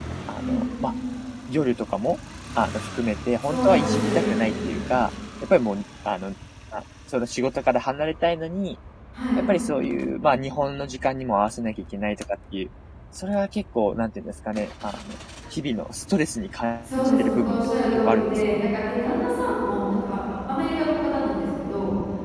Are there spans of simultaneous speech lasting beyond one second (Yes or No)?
Yes